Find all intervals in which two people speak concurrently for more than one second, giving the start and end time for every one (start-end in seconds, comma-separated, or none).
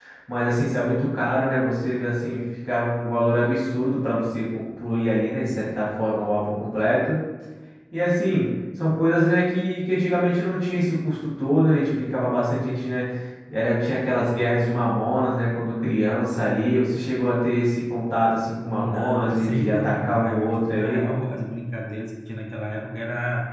18.8-21.0